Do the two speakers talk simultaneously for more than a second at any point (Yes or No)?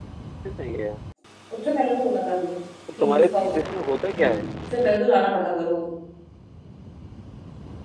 No